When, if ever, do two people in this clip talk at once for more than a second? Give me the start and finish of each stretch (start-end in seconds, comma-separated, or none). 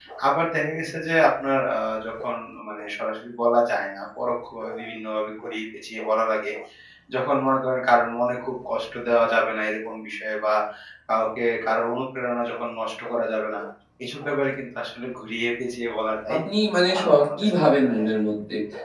16.9-18.1